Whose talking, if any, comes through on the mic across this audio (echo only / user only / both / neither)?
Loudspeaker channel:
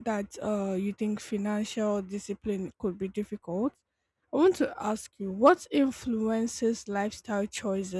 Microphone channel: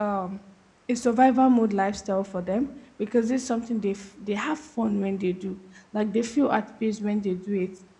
user only